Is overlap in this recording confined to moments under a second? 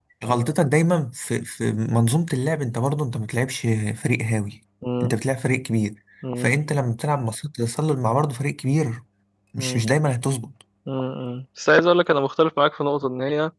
Yes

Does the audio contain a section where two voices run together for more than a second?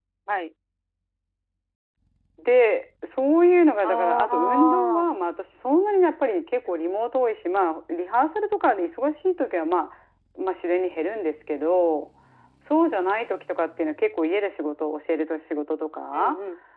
Yes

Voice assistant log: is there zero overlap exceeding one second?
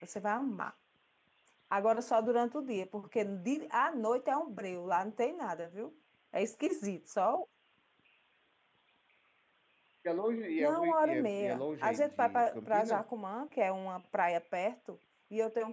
No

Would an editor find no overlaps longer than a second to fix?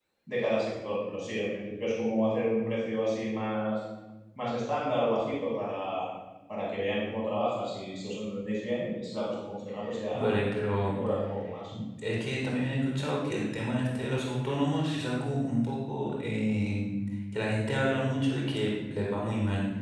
Yes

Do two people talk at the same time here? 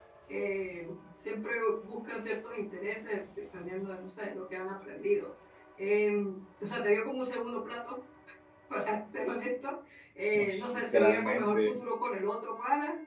Yes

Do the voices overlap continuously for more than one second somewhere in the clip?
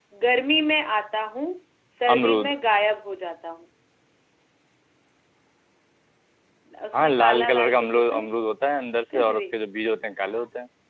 Yes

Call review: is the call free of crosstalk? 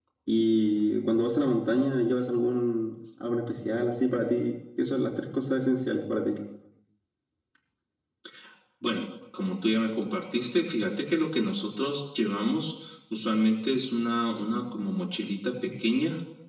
Yes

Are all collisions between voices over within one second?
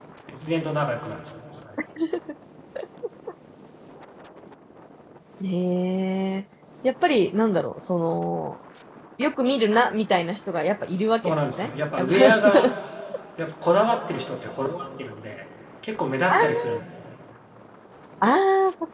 No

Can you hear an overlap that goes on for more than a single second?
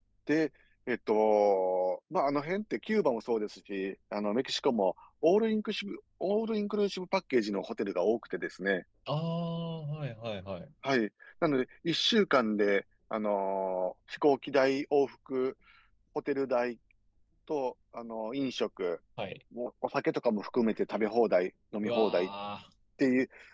No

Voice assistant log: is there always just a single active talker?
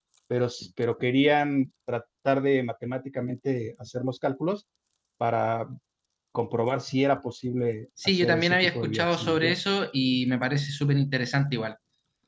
No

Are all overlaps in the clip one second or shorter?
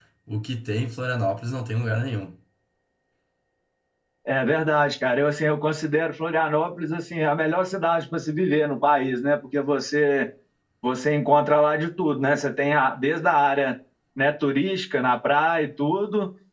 Yes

